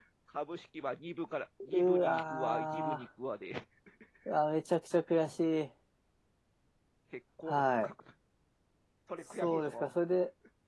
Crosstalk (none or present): present